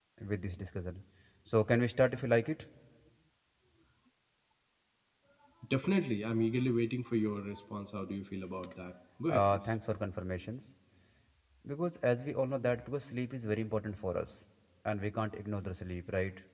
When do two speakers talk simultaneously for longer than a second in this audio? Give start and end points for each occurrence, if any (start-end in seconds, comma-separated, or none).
none